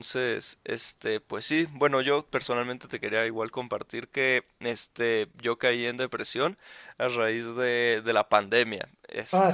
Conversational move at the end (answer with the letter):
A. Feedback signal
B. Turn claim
B